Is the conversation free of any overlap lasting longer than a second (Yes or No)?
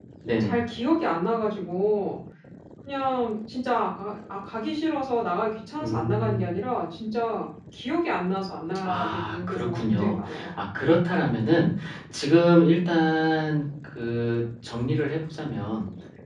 No